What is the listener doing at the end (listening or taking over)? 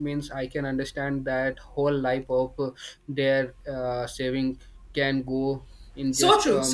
taking over